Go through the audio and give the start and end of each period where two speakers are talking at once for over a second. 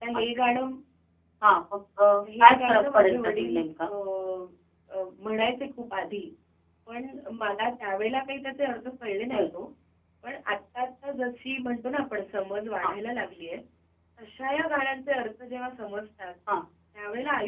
2.4-3.9

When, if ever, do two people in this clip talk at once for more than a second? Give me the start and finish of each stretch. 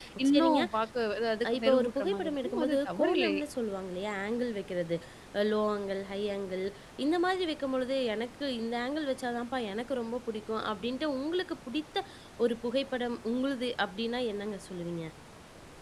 1.5-3.4

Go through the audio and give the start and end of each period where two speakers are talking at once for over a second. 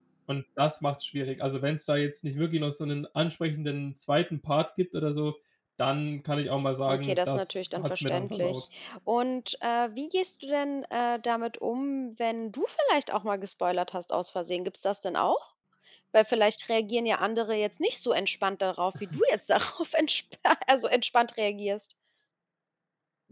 6.9-8.6

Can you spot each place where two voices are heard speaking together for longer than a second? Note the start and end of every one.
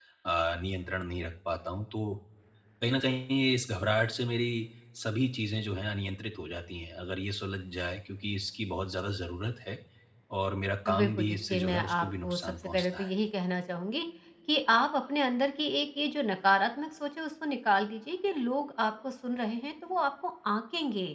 11.0-13.1

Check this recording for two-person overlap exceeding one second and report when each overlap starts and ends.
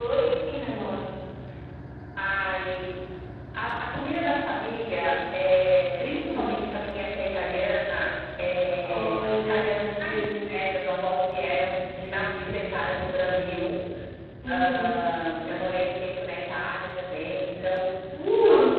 8.8-10.6

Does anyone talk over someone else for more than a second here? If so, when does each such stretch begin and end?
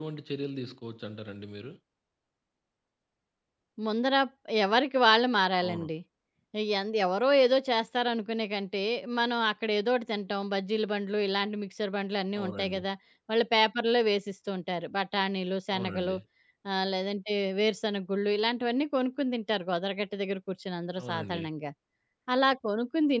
none

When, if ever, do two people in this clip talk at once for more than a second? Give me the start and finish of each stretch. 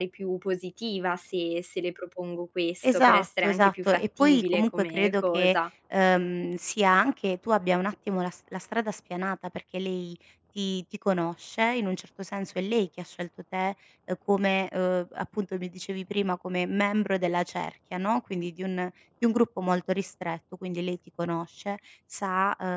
2.8-5.6

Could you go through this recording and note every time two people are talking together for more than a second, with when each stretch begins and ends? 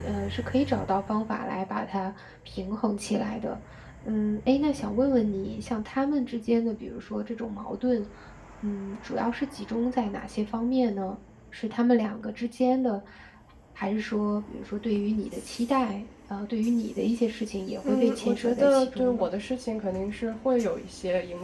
17.8-19.3

